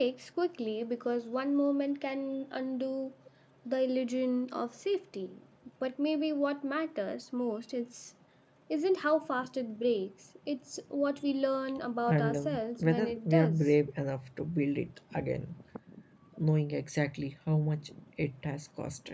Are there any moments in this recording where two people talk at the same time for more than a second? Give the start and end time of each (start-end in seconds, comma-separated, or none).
12.1-13.7